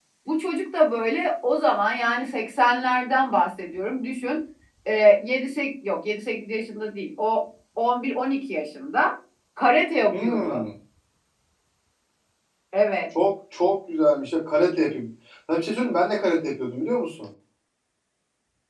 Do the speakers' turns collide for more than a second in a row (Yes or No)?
No